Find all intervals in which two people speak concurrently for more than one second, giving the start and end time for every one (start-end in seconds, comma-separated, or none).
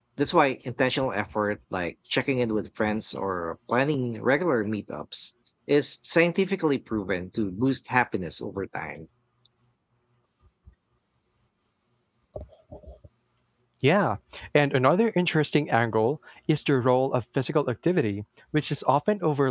none